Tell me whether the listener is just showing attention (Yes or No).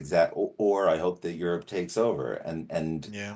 Yes